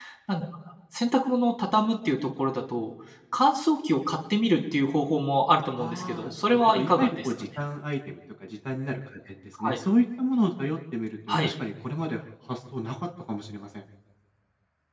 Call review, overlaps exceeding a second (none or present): present